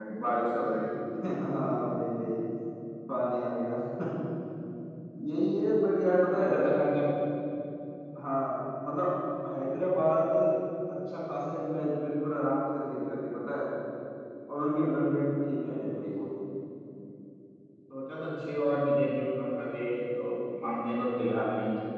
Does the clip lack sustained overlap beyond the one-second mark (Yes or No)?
Yes